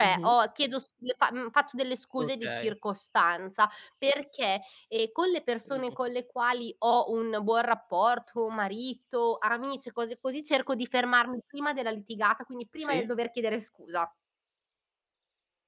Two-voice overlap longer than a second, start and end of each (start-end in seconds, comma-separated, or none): none